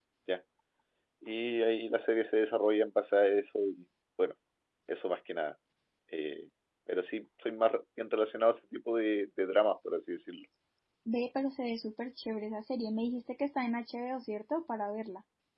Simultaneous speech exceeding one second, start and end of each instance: none

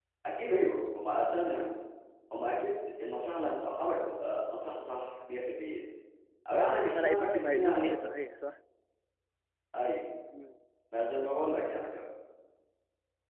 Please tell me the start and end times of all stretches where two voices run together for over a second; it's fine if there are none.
6.5-8.0

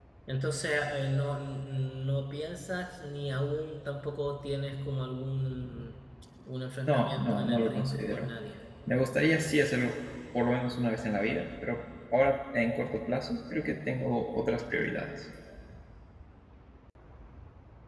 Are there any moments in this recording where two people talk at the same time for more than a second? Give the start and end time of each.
6.9-8.3

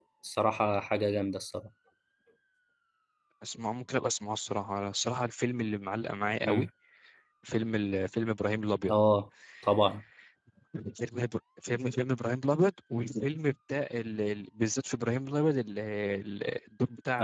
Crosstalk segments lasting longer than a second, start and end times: none

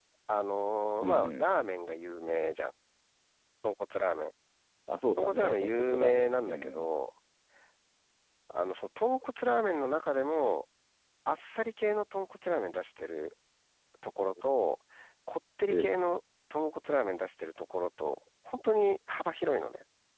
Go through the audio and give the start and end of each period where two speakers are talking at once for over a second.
5.2-6.9

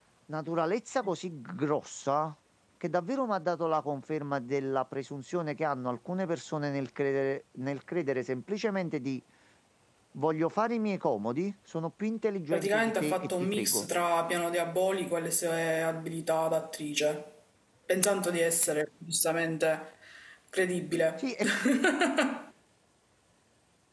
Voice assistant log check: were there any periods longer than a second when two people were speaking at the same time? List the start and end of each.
12.5-13.9

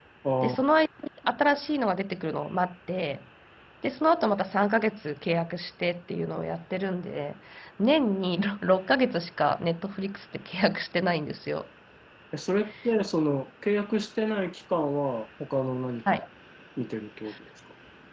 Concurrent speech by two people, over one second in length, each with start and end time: none

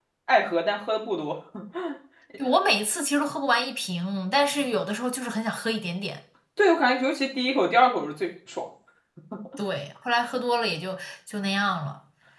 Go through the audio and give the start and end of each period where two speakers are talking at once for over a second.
none

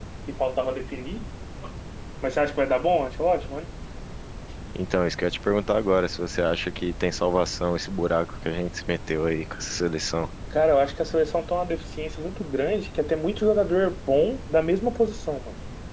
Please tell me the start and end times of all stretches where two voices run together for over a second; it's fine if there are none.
none

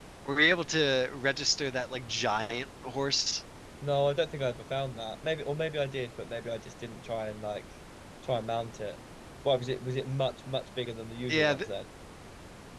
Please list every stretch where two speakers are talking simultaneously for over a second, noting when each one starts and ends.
none

